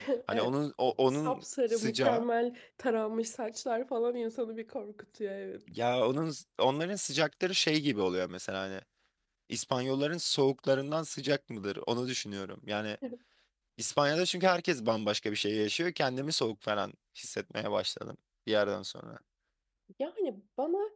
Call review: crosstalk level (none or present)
present